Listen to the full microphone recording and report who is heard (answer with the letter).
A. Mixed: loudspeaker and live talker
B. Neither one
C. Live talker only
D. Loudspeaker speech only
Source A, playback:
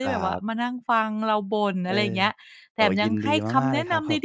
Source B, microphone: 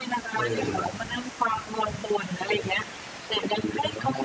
A